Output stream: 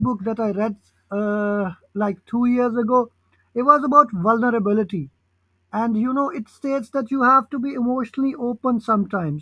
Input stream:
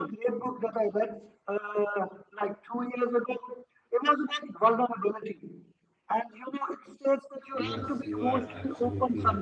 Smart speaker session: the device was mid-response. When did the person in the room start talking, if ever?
8 s

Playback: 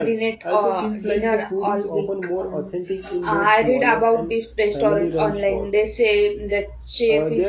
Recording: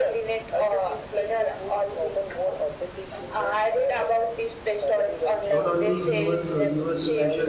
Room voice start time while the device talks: 6 s

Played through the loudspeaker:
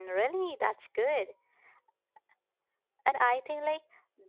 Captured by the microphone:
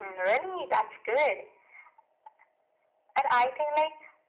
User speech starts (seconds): none

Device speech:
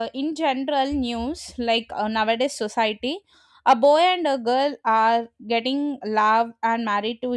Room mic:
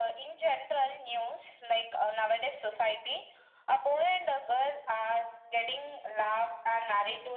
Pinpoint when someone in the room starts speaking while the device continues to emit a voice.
none

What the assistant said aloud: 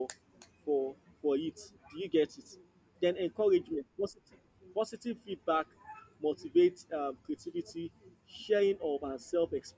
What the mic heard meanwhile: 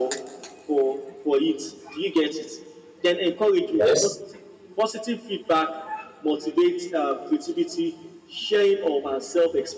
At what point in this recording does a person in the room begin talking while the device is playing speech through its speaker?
4 s

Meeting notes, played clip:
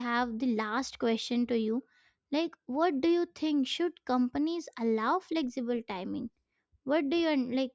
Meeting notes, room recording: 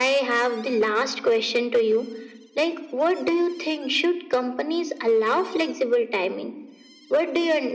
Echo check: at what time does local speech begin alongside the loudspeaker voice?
none

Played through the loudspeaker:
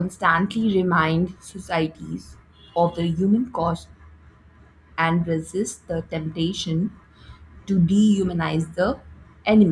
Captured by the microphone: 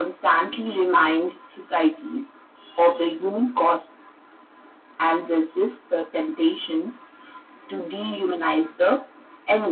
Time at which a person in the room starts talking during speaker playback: none

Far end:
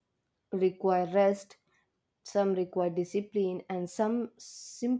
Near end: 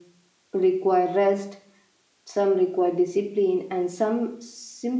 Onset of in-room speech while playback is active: none

